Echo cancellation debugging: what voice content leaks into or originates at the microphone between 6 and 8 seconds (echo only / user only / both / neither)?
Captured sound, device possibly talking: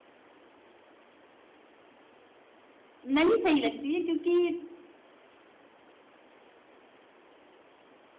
neither